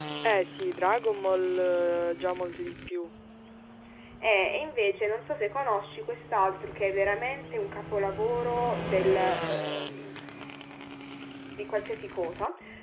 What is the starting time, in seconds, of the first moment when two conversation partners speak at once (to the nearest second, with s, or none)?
none